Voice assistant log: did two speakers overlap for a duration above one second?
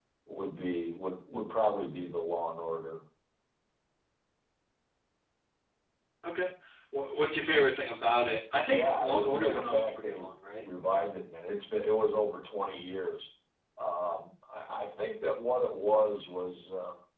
Yes, from 8.7 s

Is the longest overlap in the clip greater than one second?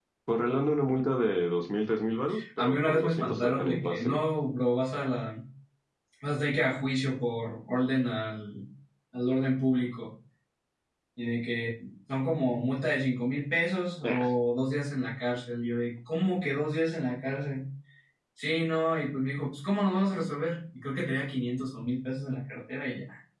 Yes, from 2.6 s

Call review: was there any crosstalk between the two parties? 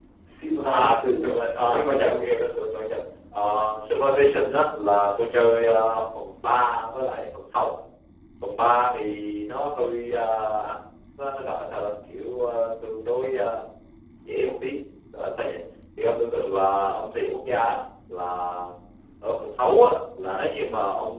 Yes, from 0.6 s

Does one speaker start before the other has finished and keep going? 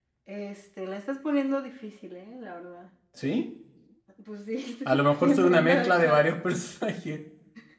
Yes, from 4.8 s

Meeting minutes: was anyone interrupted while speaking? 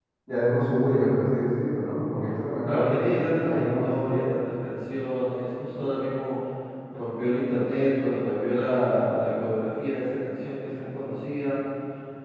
Yes, from 2.6 s

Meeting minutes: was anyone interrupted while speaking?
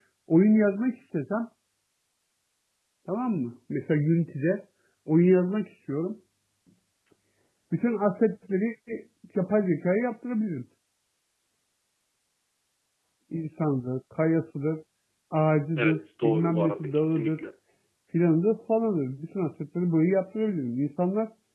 Yes, from 15.8 s

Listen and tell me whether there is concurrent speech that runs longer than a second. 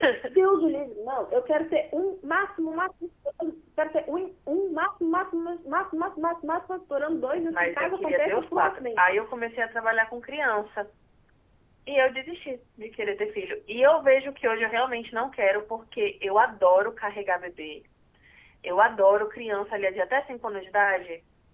Yes, from 7.5 s

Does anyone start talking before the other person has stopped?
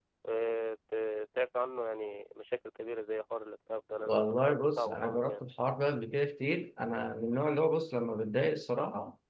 Yes, from 4.0 s

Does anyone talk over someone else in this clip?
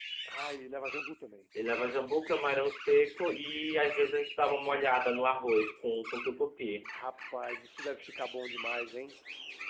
No

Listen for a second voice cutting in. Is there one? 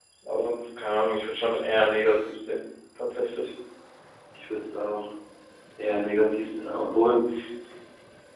No

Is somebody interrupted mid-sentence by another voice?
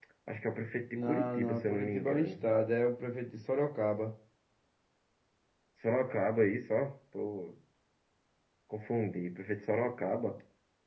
Yes, from 1.0 s

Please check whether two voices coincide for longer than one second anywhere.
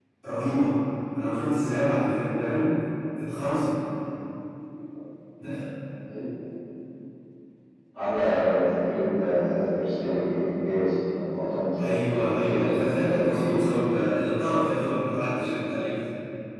Yes, from 11.8 s

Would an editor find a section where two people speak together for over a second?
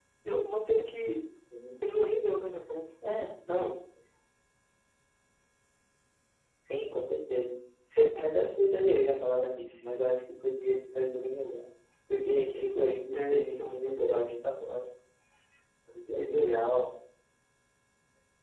Yes, from 13.1 s

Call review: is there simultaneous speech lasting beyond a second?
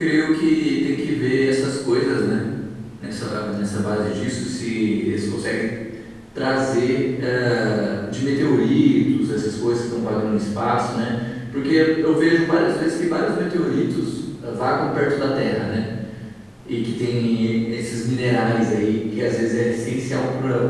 No

